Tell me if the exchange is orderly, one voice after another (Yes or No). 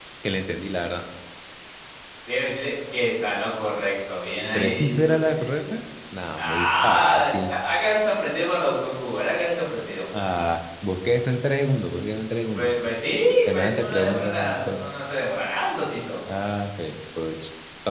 No